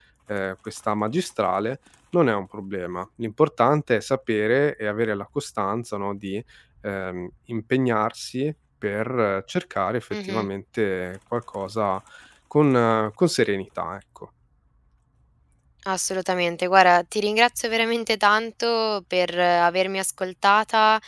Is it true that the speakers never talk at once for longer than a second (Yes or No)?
Yes